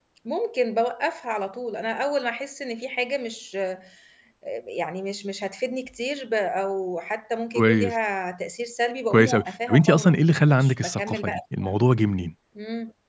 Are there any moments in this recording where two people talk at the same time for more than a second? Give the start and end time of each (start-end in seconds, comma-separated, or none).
9.1-11.7